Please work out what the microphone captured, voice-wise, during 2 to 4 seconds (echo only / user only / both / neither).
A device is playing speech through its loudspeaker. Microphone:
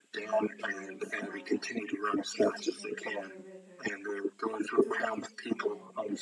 both